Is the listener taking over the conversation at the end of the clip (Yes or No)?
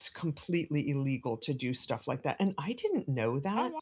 No